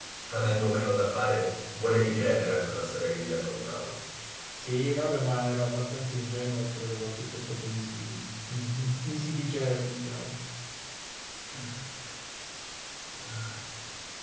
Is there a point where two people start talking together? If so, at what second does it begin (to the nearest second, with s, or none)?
none